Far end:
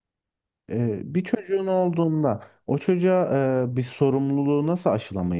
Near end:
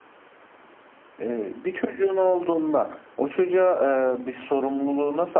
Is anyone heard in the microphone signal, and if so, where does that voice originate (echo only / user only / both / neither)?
echo only